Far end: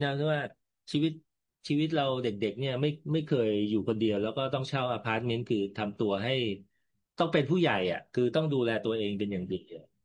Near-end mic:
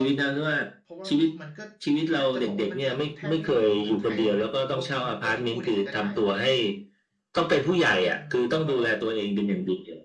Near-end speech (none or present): present